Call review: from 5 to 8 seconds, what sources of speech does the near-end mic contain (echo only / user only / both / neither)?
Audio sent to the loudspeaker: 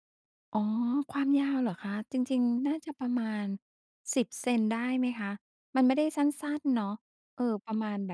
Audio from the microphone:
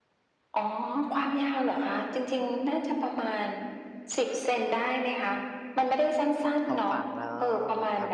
both